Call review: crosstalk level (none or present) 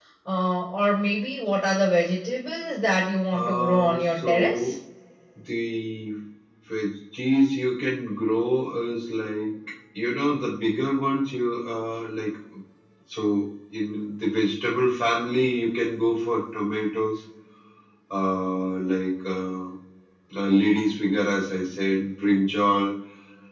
present